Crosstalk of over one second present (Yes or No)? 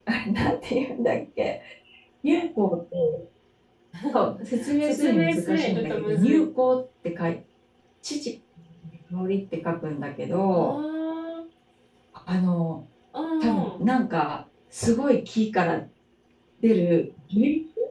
Yes